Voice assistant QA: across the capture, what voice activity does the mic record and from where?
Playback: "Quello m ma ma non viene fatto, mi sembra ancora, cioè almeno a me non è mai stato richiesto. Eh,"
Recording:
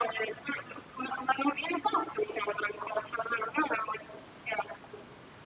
echo only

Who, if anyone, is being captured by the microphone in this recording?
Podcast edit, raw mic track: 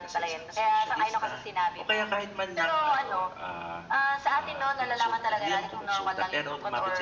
both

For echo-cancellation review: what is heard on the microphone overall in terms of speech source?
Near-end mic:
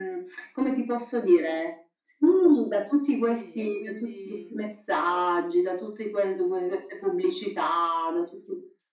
both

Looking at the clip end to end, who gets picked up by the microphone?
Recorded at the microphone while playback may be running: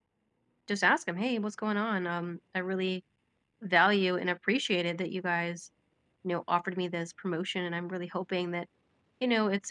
user only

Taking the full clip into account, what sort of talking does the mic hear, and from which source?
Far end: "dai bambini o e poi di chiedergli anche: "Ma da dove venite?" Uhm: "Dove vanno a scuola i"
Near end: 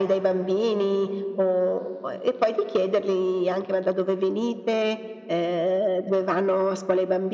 echo only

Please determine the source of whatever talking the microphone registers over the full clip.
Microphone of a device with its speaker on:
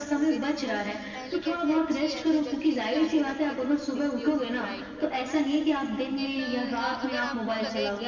both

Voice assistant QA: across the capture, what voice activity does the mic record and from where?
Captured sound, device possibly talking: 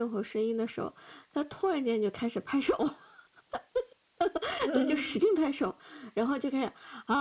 both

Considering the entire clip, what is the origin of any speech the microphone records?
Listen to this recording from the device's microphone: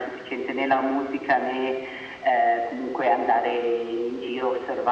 echo only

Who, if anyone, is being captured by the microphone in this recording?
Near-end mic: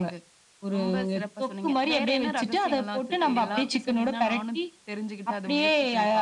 both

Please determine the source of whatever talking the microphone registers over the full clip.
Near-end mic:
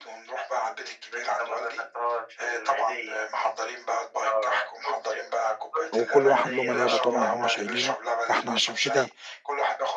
both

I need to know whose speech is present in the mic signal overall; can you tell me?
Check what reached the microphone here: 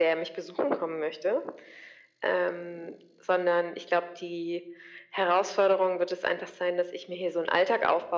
echo only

